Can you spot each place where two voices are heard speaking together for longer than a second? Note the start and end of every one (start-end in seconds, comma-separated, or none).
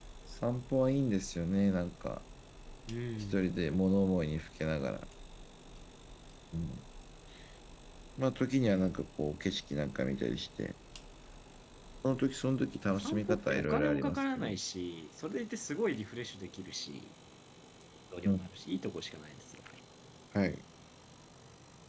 12.9-14.6